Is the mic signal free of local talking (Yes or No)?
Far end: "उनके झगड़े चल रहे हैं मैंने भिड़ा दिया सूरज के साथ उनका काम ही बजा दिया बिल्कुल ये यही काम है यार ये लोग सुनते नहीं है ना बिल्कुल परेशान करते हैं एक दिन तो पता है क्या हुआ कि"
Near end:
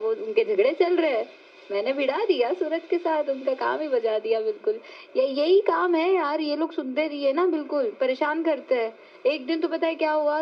Yes